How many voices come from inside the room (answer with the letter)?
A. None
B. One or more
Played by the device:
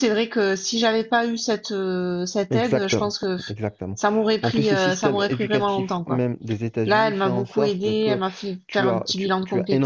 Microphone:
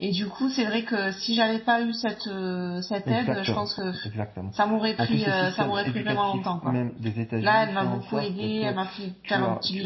A